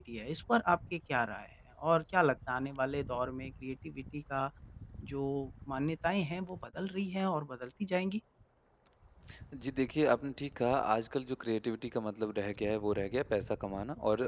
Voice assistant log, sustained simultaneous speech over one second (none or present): none